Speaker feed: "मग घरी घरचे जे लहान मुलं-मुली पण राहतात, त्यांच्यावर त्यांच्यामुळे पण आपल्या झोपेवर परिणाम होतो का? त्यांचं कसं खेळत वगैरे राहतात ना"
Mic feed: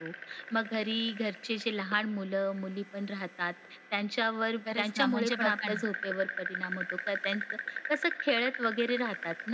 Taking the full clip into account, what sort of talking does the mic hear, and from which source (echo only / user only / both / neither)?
both